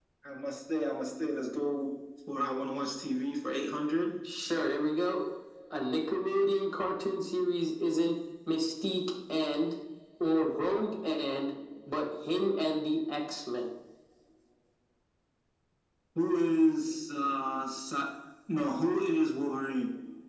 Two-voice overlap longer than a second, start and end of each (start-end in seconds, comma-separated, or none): none